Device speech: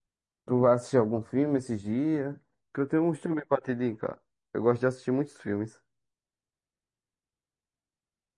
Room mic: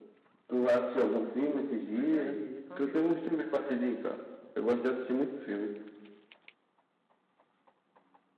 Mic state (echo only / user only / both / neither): both